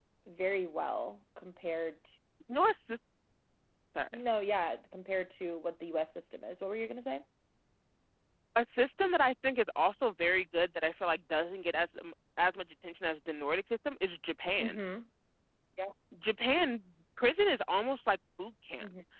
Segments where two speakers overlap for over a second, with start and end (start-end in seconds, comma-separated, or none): none